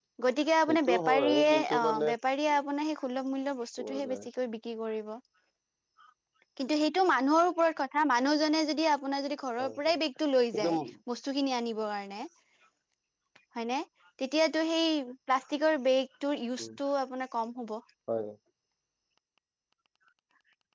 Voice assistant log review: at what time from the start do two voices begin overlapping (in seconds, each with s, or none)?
0.7 s